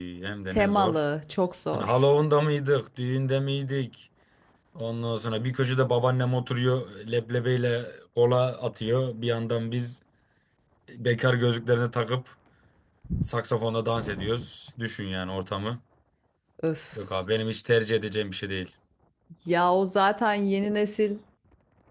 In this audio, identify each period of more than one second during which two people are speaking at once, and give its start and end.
none

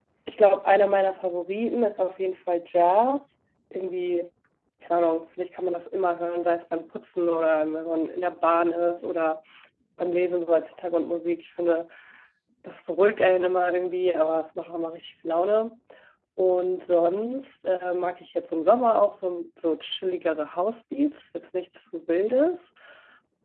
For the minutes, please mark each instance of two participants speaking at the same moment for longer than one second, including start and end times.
none

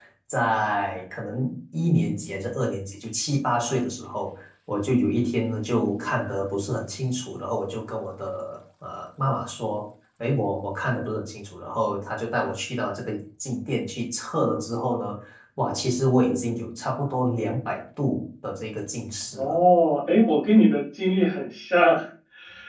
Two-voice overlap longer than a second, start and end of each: none

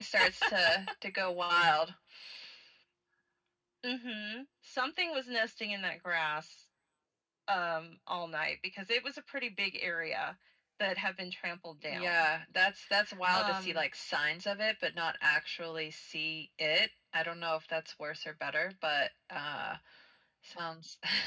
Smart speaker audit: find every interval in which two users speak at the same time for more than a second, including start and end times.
none

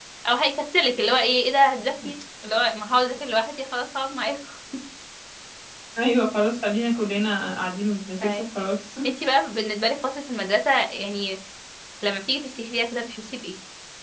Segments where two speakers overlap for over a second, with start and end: none

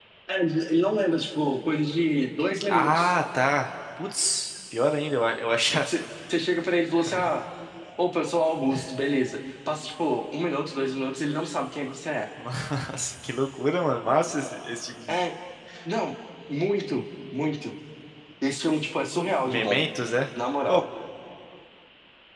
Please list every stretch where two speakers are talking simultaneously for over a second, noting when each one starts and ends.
none

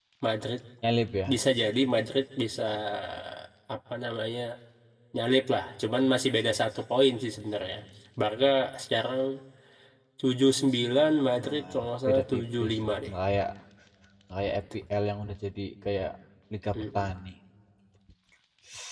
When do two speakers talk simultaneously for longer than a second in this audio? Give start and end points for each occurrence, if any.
11.4-13.1

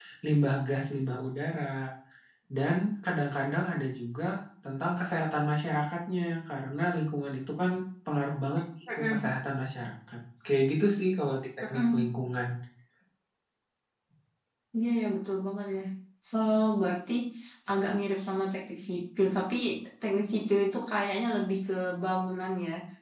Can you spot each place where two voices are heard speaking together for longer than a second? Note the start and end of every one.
none

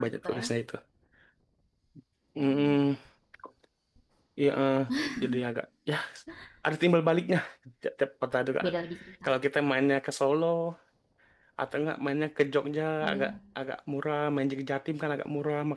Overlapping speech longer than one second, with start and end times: none

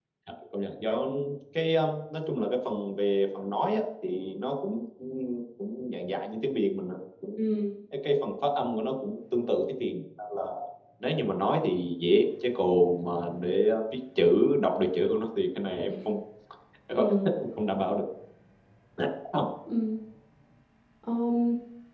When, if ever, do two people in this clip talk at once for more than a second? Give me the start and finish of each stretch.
none

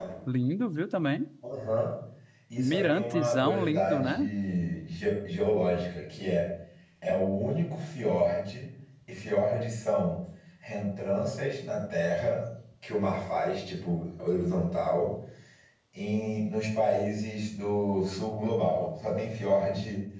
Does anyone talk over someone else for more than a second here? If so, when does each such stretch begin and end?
2.6-4.2

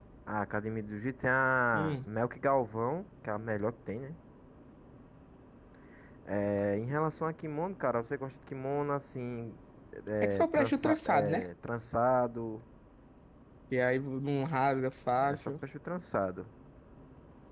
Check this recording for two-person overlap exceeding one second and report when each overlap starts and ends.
10.2-11.5

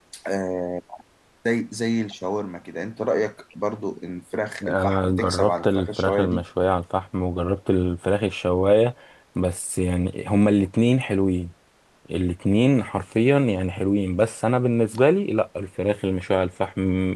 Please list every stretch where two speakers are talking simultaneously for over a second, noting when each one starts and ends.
4.6-6.4

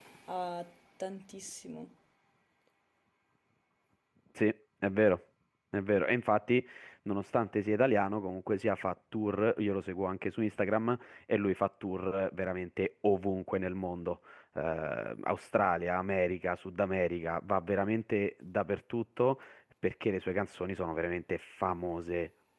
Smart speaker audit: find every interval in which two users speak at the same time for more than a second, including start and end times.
none

